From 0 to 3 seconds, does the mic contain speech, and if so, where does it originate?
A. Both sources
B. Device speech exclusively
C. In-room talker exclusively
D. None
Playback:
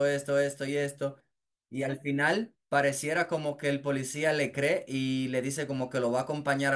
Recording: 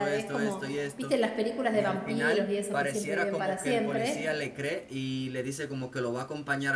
A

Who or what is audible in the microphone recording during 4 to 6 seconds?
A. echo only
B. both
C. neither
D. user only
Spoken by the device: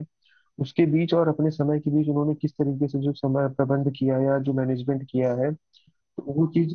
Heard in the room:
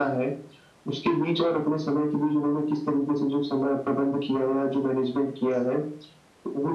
A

